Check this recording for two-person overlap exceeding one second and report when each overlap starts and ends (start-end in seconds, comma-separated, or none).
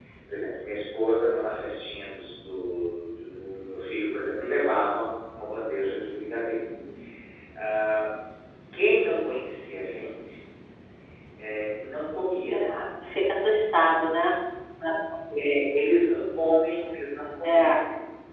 none